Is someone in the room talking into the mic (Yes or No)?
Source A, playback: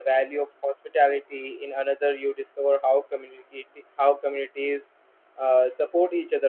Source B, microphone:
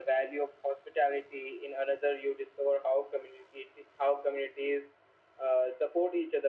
No